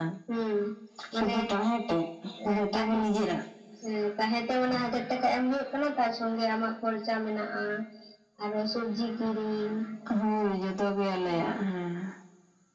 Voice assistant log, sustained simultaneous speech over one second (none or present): none